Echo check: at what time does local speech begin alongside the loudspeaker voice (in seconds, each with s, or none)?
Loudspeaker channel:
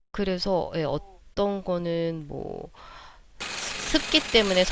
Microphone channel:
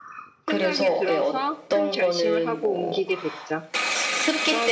0.5 s